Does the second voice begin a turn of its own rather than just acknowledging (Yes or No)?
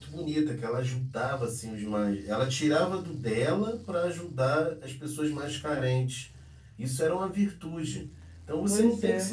No